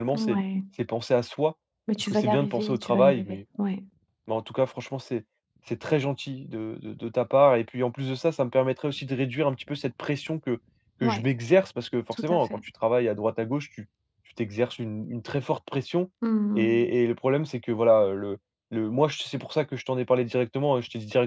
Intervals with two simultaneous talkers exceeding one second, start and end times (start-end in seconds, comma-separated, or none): 1.9-3.4